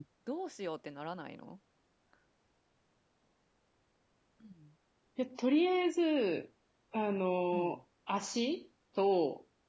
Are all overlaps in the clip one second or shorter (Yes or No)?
Yes